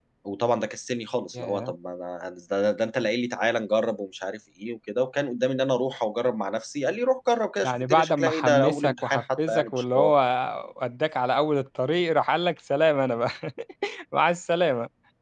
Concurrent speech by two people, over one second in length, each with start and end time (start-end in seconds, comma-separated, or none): 7.6-10.1